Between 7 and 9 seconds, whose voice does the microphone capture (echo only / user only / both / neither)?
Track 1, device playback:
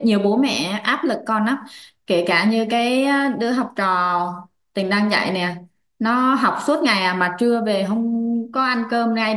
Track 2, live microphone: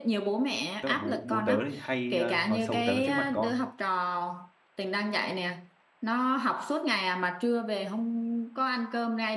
echo only